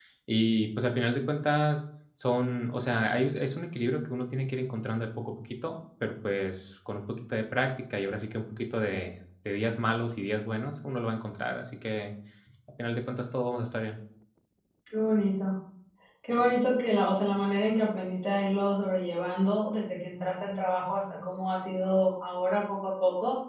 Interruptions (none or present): none